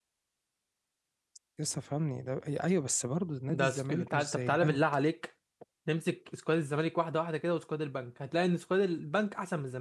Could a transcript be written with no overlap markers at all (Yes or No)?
No